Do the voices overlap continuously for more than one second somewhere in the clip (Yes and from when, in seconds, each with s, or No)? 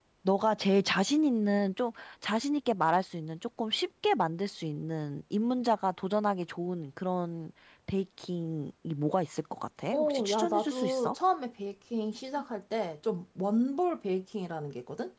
Yes, from 9.9 s